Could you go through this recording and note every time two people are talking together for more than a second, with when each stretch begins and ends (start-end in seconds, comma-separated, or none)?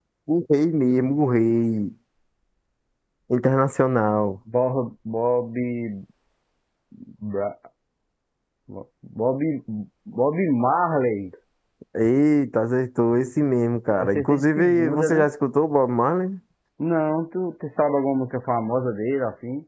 13.9-15.3